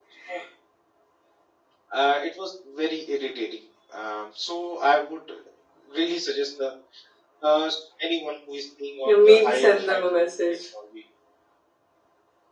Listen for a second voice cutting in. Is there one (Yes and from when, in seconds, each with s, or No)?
Yes, from 9.0 s